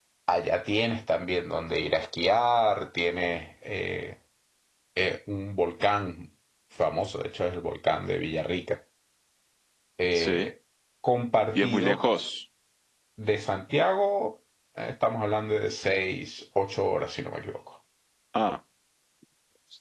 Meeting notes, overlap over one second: none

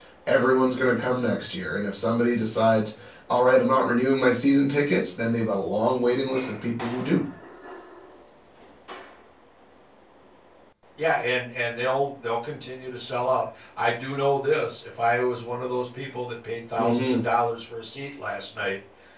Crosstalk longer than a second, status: none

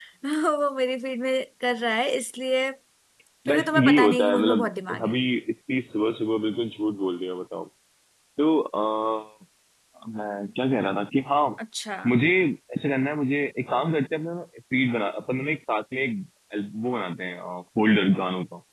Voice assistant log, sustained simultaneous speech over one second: present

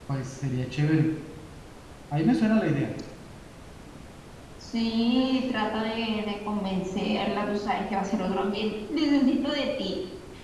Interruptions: none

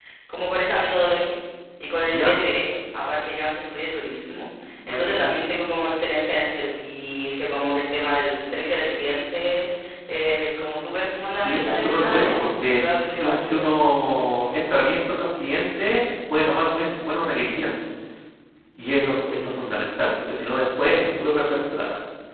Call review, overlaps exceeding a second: present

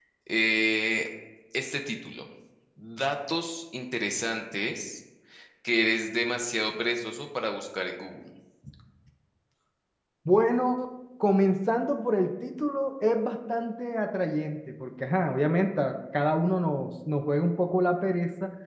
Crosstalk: none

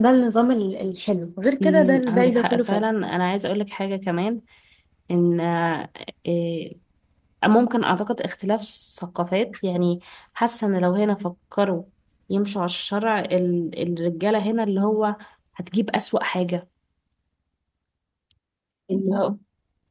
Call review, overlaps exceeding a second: present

